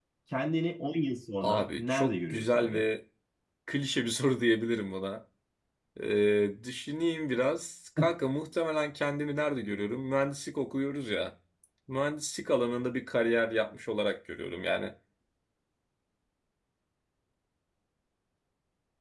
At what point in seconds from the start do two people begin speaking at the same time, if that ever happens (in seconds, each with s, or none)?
1.4 s